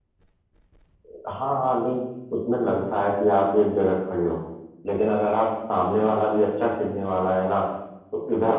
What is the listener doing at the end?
listening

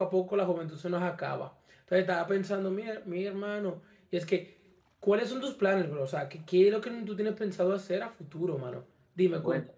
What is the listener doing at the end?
listening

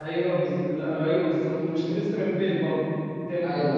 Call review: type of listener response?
listening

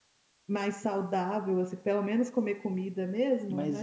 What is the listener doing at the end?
taking over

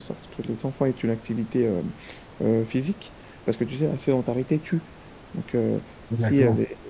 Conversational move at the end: listening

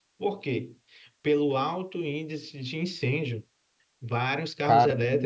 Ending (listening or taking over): listening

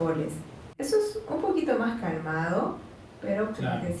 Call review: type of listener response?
listening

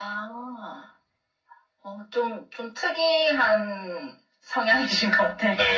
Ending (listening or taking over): taking over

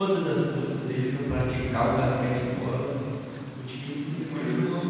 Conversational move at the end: listening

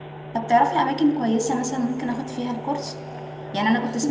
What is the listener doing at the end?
listening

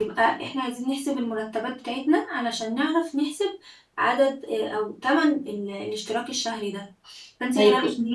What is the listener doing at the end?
listening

